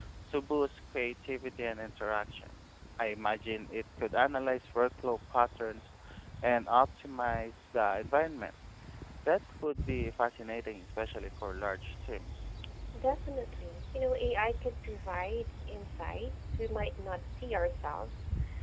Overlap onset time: none

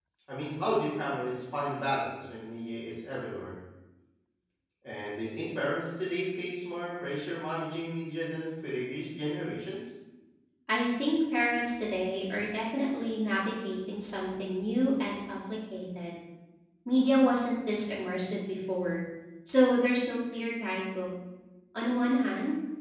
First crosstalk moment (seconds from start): none

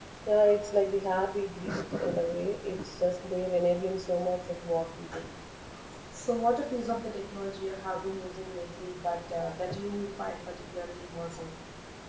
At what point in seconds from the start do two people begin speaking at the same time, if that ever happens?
none

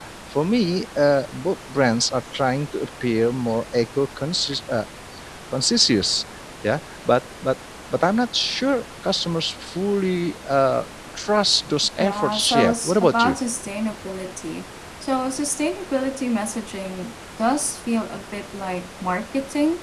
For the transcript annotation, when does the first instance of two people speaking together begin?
12.0 s

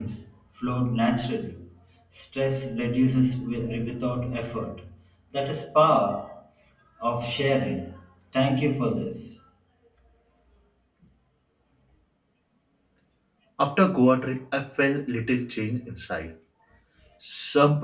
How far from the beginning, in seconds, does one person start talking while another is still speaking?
none

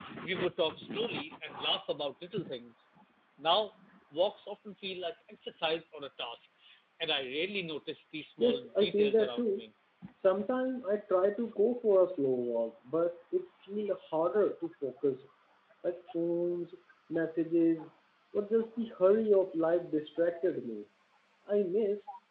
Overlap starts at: 8.4 s

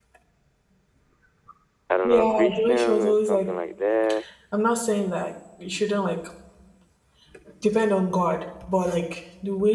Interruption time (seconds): 2.0 s

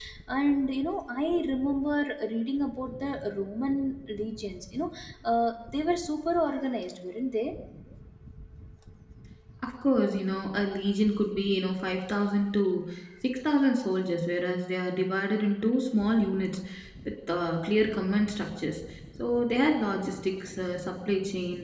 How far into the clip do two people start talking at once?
none

